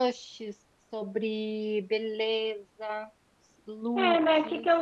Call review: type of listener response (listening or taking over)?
taking over